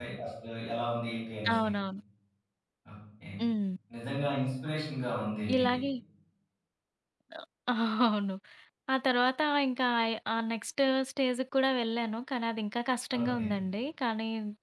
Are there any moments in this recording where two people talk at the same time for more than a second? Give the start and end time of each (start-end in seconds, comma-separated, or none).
none